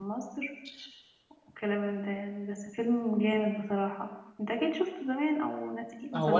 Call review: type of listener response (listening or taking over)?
taking over